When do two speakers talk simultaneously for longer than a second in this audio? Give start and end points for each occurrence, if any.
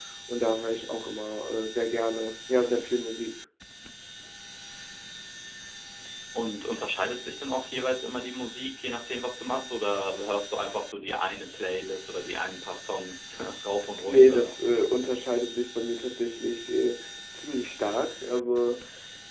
none

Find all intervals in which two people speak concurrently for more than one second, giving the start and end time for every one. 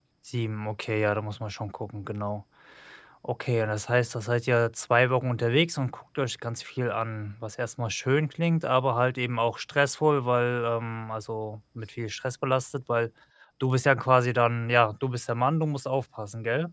none

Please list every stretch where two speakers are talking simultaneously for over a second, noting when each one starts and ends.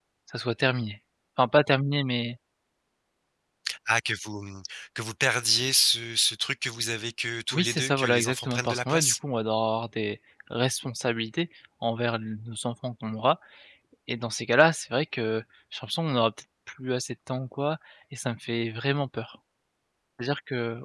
7.5-9.1

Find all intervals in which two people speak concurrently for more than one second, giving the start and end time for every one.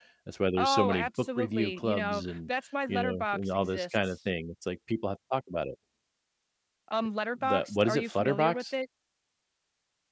0.6-2.5, 2.9-4.2, 7.4-8.6

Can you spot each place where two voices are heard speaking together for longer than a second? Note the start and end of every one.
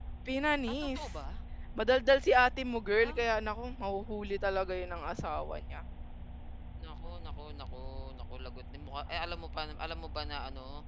none

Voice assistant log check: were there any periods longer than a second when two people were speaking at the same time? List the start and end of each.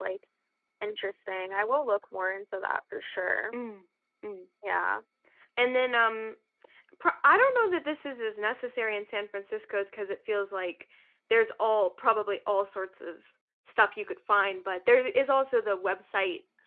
none

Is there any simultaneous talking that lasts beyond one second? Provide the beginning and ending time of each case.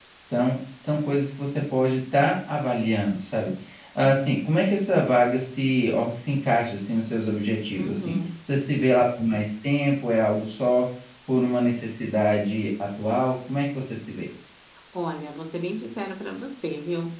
none

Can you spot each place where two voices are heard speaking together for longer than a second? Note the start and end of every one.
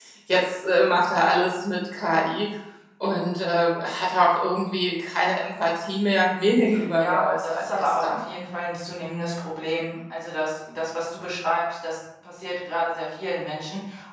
6.2-8.2

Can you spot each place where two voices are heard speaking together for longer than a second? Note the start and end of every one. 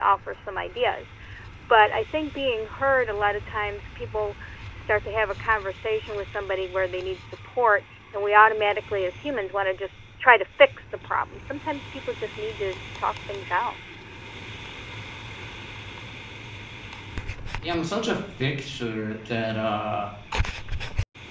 none

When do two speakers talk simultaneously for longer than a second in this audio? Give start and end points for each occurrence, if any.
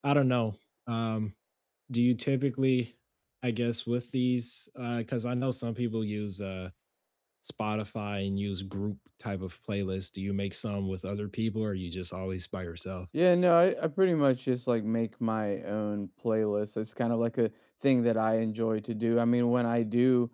none

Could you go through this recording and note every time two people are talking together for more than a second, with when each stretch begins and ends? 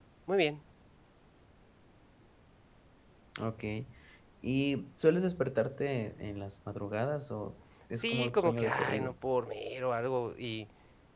7.9-9.1

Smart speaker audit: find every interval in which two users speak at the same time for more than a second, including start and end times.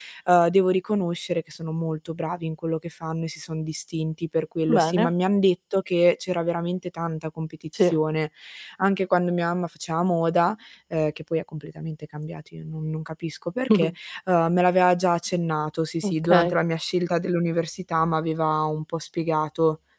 none

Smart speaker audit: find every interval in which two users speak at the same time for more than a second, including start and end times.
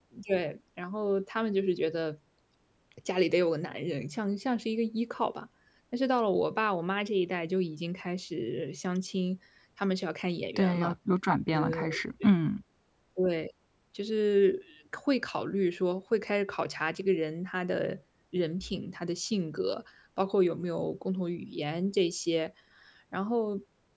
none

